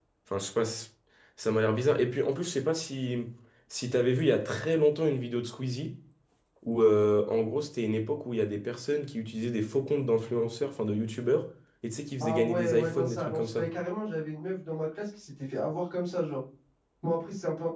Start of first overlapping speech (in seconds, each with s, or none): 12.2 s